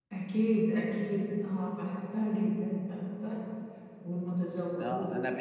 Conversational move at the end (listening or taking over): taking over